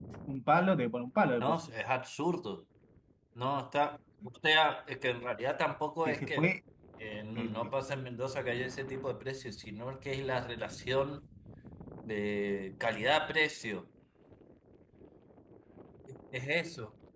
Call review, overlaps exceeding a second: none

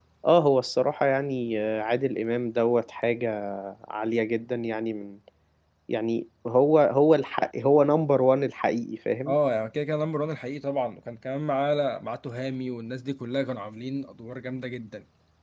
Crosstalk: none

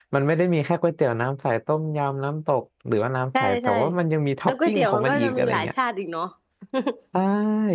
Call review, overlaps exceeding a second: present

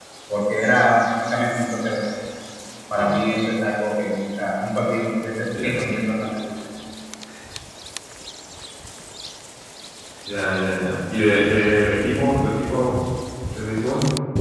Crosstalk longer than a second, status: none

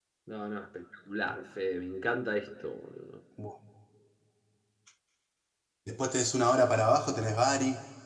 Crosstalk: none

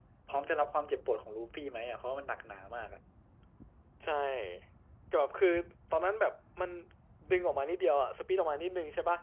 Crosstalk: none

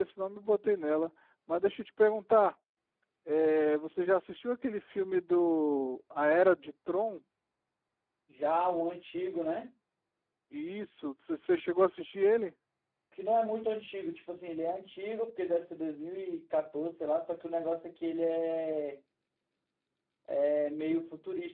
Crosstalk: none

